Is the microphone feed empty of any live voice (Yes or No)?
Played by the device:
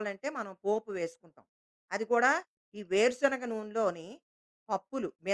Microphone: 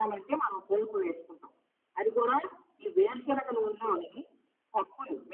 Yes